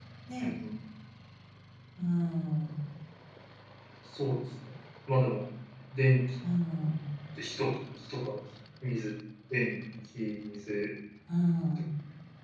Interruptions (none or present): none